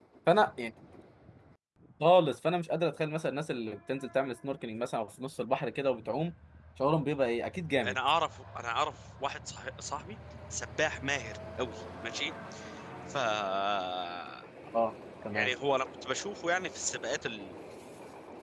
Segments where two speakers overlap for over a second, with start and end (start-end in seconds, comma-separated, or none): none